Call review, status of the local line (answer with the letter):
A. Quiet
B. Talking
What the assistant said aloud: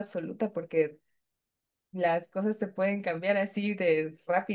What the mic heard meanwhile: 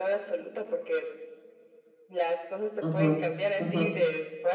B